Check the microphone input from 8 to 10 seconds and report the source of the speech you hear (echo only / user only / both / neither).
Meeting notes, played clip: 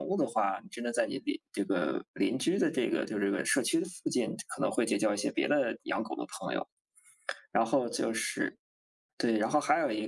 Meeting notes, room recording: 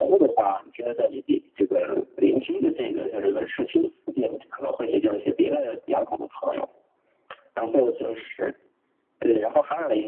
echo only